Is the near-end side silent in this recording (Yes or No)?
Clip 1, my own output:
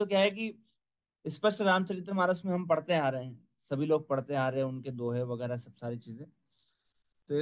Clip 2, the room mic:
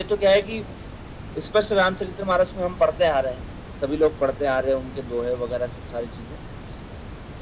Yes